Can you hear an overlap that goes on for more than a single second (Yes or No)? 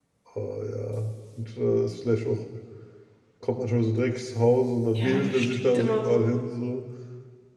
Yes